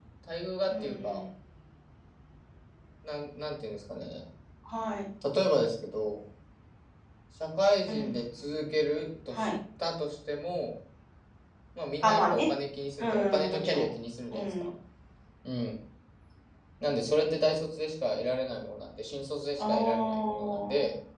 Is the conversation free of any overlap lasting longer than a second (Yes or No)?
No